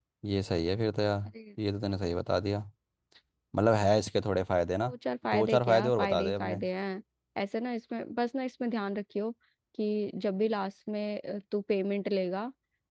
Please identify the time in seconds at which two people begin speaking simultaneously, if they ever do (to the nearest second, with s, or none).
5 s